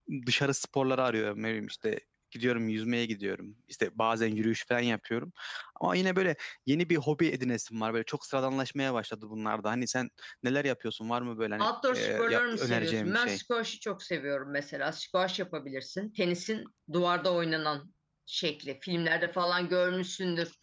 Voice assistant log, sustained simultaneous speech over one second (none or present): present